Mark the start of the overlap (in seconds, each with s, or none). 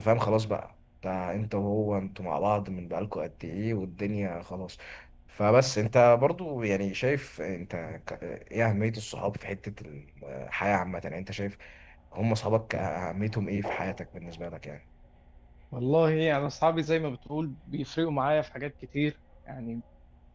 none